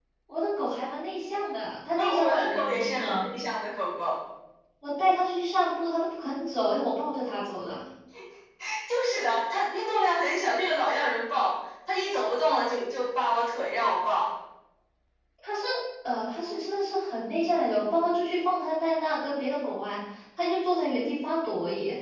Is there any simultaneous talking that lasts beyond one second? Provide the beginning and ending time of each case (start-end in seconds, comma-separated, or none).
2.0-3.3